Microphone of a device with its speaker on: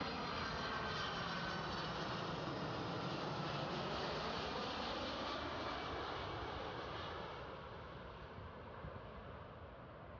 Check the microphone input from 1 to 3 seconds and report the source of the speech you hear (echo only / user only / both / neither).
neither